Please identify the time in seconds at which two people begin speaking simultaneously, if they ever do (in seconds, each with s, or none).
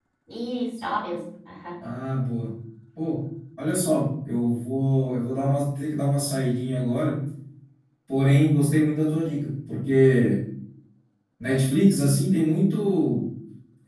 none